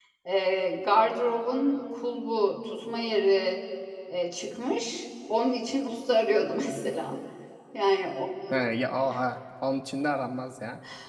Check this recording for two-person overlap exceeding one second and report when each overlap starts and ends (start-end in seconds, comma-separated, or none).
none